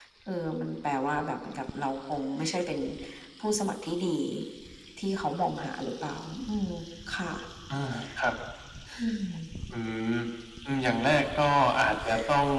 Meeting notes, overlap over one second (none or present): none